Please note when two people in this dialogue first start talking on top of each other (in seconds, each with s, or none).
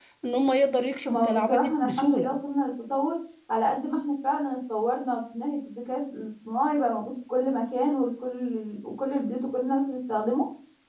1.1 s